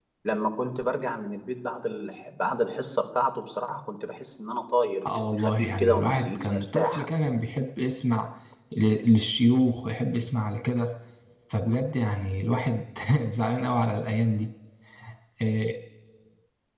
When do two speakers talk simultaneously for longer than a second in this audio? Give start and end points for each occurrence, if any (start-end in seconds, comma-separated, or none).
5.0-7.0